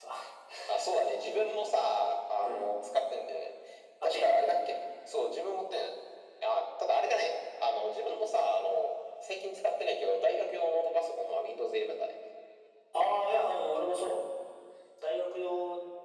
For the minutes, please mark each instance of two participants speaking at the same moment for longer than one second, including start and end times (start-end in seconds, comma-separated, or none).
none